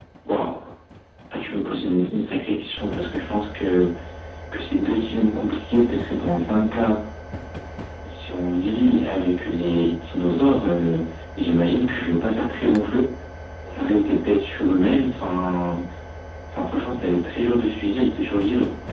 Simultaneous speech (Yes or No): No